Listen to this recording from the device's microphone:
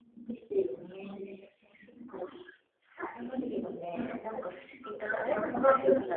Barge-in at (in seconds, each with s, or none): 3.0 s